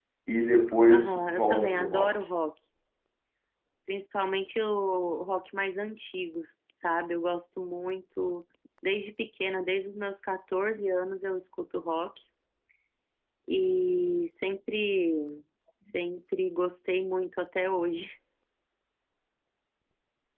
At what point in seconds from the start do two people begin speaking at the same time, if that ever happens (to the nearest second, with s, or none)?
1 s